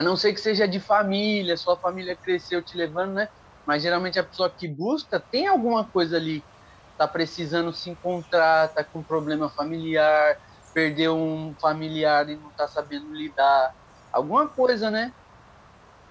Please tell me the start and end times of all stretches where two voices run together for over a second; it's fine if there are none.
none

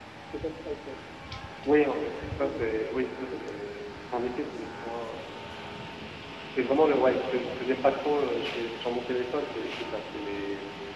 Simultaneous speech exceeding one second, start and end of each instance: 2.4-3.6

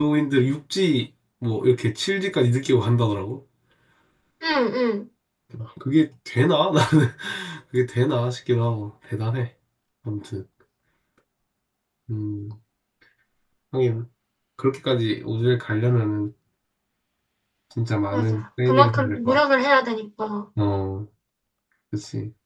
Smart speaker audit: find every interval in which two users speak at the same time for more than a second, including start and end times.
18.1-19.4

